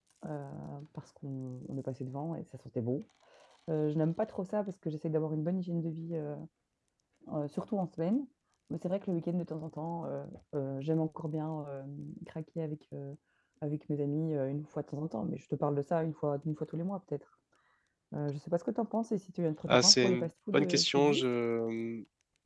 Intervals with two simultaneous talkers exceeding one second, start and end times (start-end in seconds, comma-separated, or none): 19.7-21.2